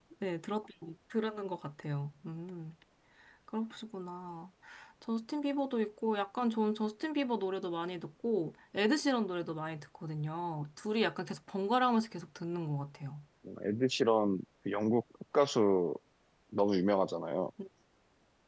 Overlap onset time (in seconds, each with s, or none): none